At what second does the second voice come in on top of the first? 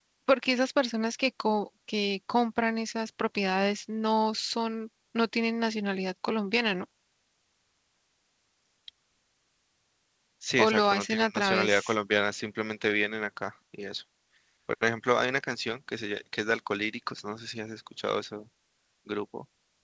10.6 s

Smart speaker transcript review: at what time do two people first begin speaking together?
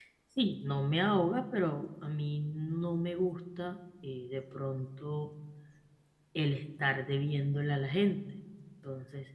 none

